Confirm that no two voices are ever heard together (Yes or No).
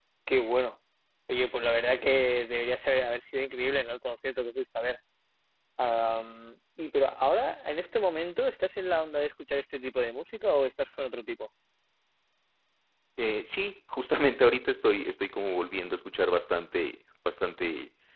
Yes